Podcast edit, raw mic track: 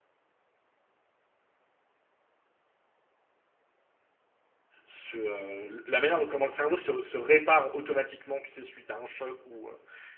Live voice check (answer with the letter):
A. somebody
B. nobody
A